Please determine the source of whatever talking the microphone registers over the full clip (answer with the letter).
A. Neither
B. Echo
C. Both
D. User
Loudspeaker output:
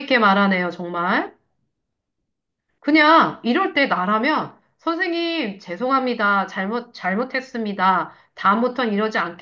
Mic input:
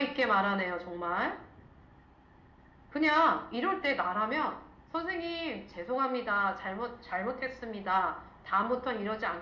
B